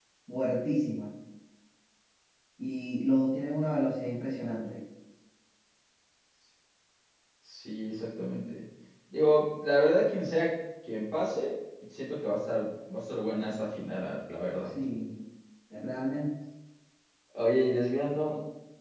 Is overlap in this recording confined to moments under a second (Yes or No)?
Yes